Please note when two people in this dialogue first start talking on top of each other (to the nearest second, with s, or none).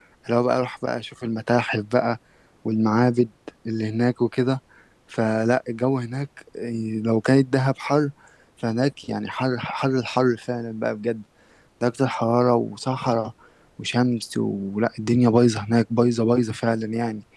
none